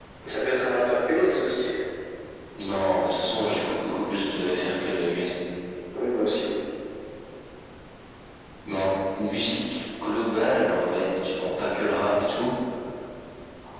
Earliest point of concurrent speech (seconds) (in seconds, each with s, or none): none